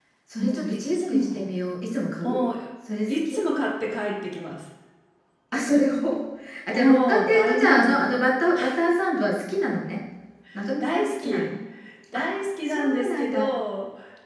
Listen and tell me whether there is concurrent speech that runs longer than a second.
Yes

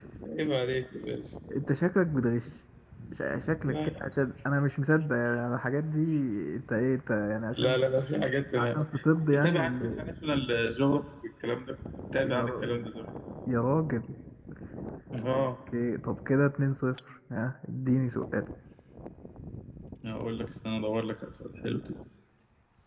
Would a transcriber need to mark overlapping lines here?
Yes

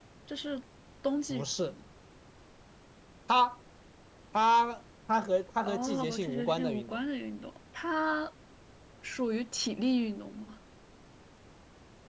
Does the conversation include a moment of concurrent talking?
Yes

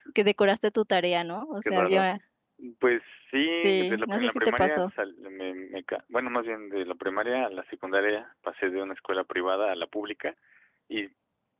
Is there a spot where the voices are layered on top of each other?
Yes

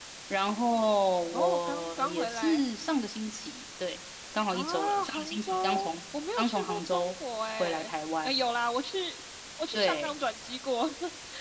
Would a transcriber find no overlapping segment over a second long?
No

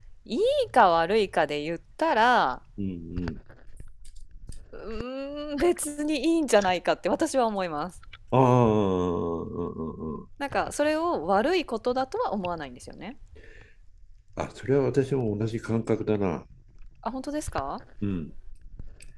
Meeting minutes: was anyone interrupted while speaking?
No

